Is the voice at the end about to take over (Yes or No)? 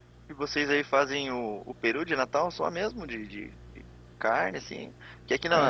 No